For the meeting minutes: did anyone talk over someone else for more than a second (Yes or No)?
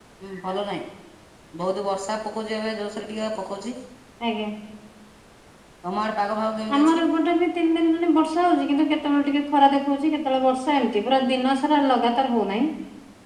No